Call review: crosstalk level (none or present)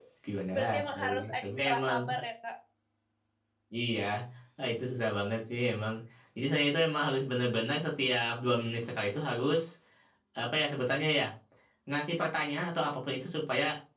present